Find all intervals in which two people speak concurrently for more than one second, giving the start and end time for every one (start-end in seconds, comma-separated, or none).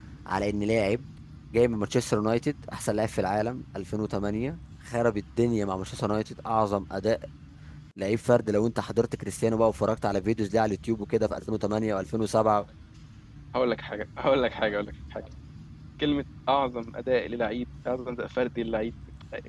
none